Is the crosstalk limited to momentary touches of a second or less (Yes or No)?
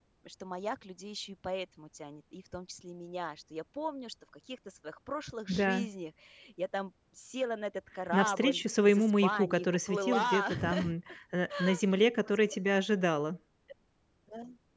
No